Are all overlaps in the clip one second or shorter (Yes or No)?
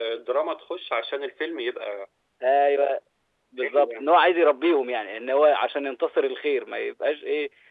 Yes